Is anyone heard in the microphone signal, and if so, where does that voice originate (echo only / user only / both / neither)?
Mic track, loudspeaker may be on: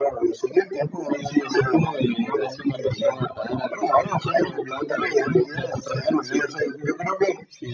echo only